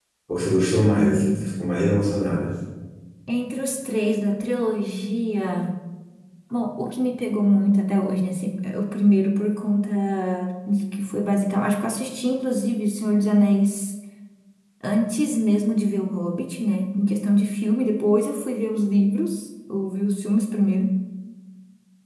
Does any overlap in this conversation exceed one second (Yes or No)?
No